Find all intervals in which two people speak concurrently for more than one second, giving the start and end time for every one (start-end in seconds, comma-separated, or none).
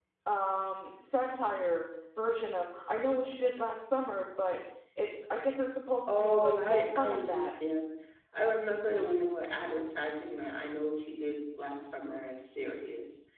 6.1-7.5